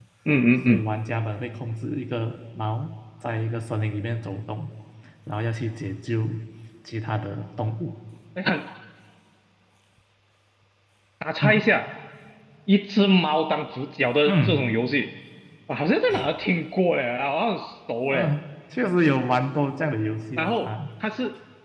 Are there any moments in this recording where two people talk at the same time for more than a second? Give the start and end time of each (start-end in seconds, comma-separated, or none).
none